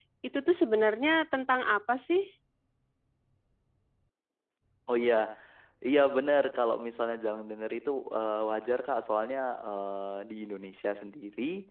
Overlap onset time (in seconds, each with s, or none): none